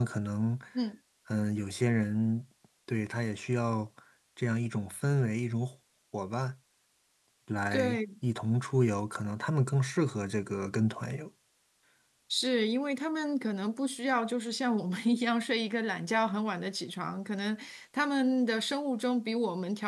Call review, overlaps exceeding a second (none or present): none